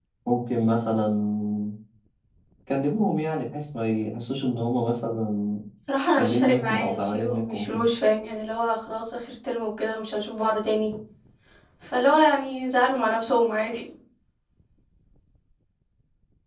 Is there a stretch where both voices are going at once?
Yes, from 6.1 s

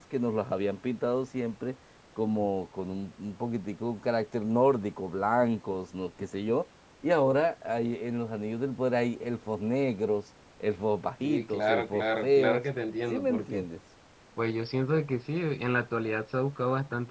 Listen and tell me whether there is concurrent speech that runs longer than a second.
Yes, from 11.2 s

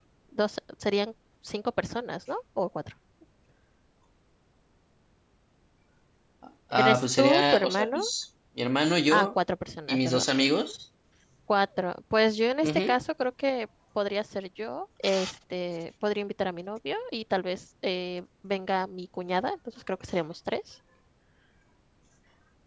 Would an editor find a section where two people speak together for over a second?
Yes, from 6.7 s

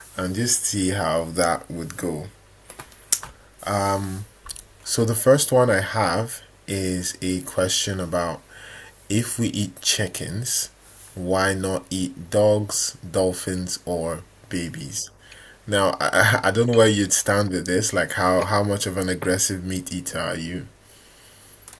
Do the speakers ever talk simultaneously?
No

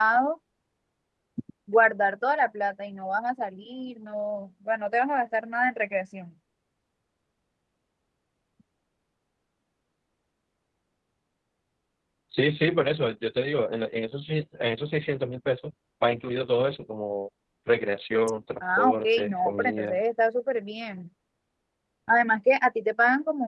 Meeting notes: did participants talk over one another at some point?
Yes, from 18.6 s

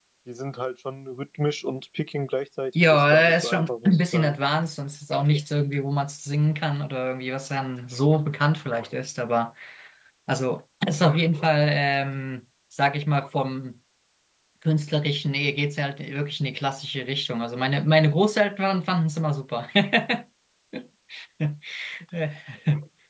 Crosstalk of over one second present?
Yes, from 2.8 s

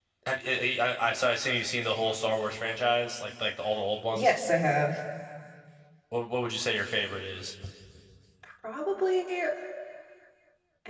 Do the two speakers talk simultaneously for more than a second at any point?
No

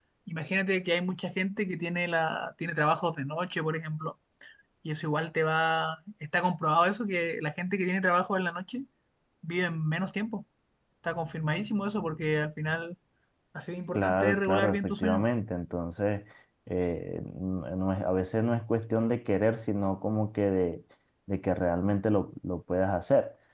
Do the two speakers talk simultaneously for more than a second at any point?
Yes, from 13.9 s

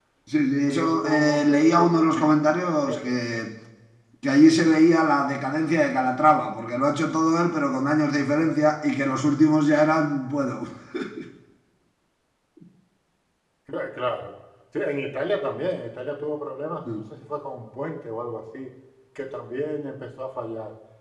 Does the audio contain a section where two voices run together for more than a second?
Yes, from 0.5 s

